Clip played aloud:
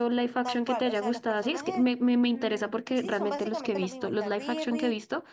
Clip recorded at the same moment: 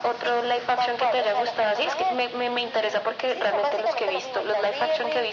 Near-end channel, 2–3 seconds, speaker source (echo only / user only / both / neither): echo only